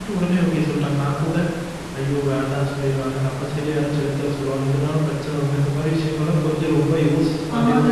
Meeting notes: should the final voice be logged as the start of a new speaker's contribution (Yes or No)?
Yes